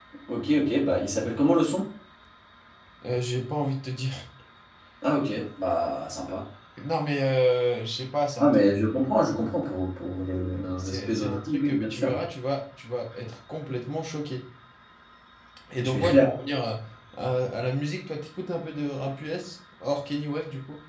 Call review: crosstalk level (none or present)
present